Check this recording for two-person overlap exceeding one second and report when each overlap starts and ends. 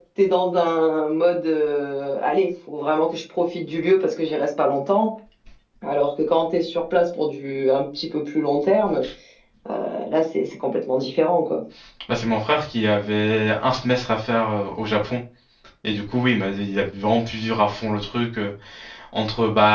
none

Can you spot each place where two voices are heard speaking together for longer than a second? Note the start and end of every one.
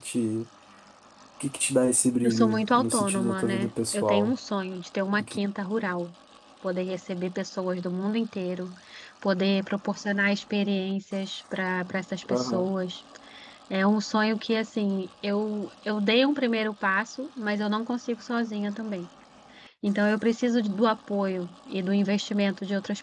2.2-4.3

